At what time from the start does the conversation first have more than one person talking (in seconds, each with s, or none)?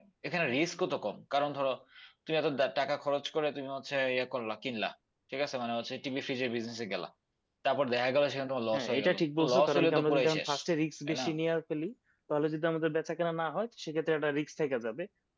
8.7 s